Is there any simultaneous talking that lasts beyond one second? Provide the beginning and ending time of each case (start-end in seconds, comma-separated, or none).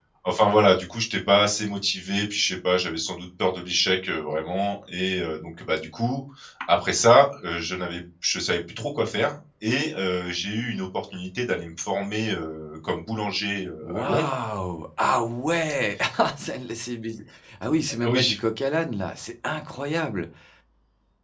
none